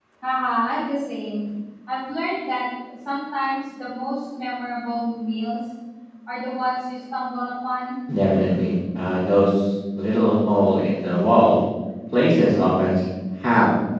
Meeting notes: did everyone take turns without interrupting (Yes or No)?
Yes